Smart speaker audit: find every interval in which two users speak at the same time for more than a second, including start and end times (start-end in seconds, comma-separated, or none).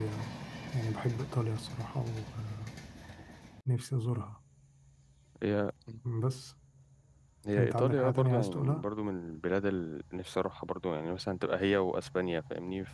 7.6-8.8